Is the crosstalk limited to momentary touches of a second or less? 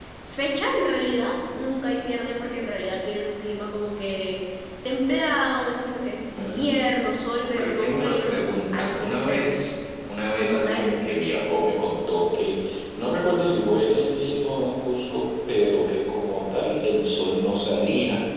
No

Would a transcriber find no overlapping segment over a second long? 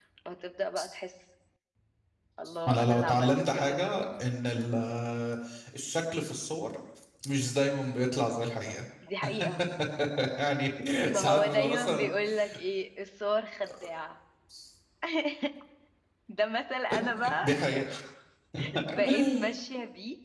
No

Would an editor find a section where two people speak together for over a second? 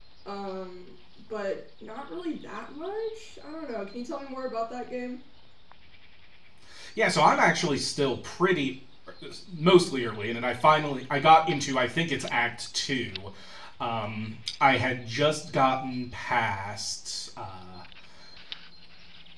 No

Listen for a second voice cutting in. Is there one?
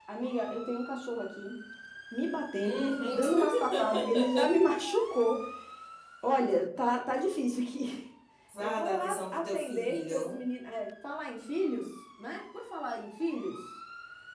Yes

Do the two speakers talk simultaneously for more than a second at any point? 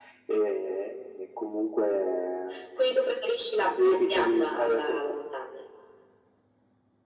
Yes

